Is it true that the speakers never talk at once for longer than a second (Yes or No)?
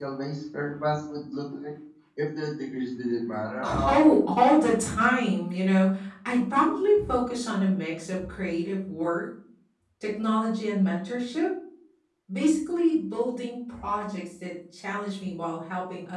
Yes